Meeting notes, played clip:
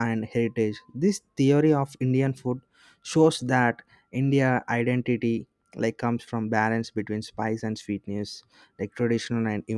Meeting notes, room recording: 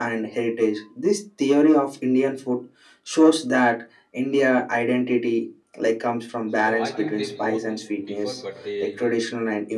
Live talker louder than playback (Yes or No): No